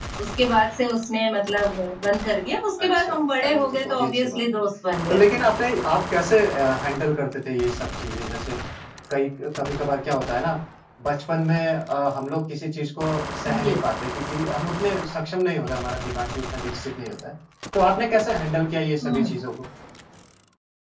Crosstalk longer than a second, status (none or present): present